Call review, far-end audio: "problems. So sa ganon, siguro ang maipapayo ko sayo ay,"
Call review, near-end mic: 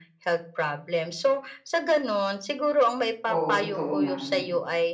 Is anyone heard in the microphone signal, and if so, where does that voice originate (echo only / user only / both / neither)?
both